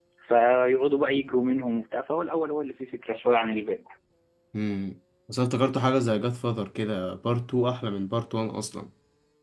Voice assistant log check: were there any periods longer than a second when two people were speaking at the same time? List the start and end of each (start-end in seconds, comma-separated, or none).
none